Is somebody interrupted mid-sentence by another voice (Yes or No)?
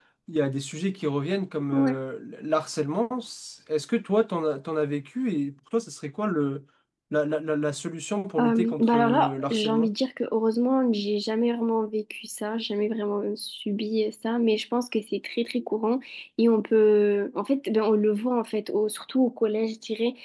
Yes